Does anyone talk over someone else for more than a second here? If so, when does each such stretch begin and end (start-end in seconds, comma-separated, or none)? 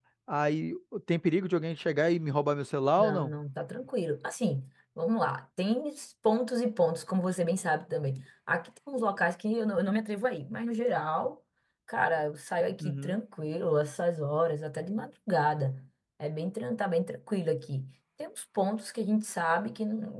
none